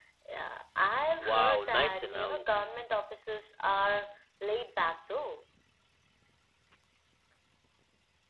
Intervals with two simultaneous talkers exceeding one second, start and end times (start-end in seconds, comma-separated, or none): 1.2-2.7